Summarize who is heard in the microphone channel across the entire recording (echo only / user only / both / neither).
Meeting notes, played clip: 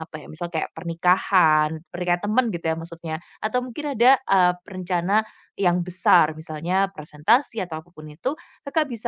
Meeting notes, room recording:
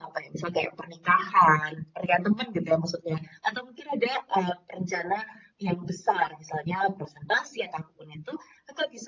echo only